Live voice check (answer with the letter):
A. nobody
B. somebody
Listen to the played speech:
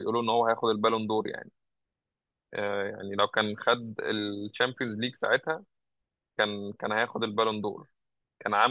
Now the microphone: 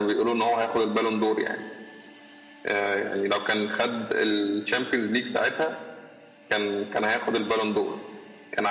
A